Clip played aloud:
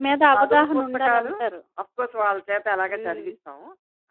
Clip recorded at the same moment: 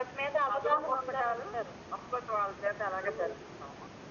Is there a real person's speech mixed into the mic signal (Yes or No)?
No